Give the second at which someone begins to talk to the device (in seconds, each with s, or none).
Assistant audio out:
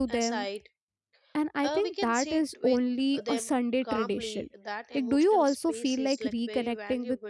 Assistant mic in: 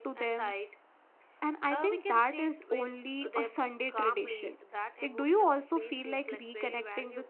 none